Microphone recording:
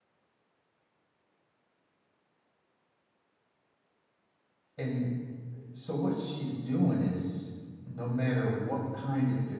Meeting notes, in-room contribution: present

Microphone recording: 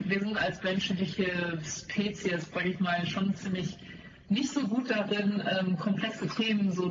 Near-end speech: none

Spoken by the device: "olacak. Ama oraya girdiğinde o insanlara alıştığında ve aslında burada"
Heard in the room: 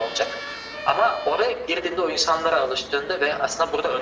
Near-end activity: none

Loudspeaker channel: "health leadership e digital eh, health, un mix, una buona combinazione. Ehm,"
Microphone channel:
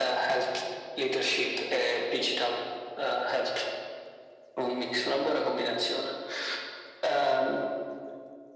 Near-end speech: none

